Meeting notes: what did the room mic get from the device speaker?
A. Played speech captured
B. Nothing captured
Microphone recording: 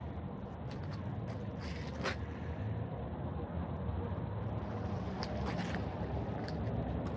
B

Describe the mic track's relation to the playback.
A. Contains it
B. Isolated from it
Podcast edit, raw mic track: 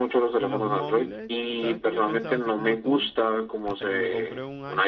A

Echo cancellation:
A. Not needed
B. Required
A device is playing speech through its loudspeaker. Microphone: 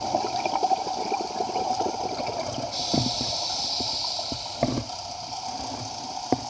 A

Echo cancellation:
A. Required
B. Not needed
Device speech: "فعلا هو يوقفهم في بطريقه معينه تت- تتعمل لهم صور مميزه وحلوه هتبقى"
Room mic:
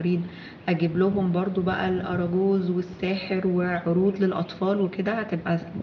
B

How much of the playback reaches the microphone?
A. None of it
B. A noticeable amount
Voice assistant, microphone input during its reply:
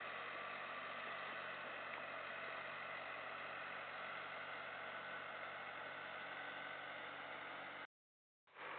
A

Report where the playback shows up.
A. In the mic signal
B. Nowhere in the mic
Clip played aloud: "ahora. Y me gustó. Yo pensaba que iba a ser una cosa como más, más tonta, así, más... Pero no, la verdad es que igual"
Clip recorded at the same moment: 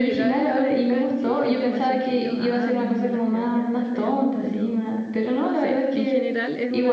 A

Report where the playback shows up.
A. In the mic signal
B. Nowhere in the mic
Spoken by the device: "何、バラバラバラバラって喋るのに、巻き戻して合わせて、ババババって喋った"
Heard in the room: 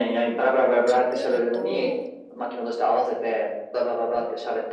A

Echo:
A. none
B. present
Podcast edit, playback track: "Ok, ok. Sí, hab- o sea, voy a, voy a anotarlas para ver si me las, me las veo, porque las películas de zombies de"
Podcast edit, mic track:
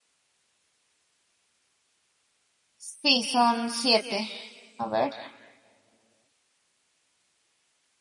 A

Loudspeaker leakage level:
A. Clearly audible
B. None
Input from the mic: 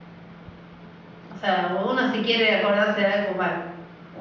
B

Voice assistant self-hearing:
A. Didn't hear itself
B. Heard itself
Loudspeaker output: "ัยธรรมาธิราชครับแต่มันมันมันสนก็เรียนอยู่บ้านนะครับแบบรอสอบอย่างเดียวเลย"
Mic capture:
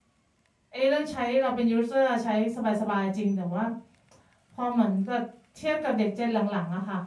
A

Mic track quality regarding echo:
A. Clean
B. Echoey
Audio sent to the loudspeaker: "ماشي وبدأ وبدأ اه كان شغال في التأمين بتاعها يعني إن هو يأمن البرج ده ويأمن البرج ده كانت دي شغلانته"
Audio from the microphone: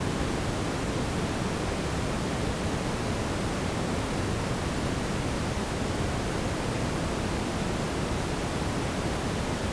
A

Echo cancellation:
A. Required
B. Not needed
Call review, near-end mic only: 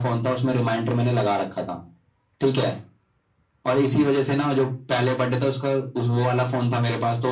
A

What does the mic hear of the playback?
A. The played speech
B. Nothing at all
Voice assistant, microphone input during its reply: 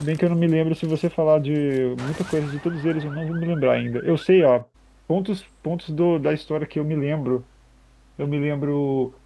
B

